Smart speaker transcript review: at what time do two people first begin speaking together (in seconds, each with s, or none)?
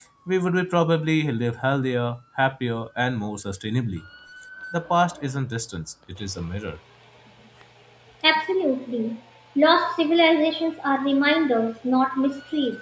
none